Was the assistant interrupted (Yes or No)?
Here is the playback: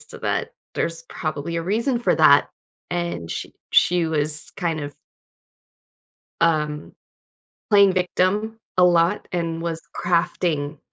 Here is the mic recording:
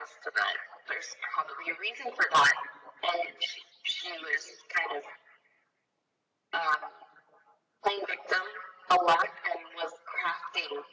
No